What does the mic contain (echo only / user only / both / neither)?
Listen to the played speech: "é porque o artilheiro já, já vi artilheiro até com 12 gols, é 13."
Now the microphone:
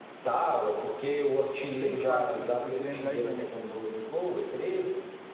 both